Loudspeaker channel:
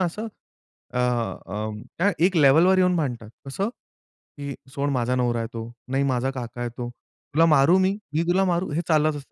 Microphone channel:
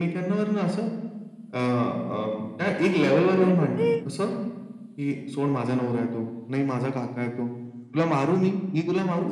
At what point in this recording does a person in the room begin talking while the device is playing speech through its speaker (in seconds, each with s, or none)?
3.4 s